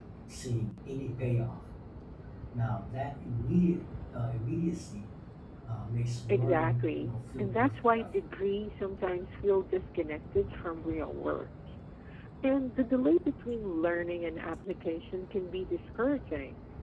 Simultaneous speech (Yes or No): Yes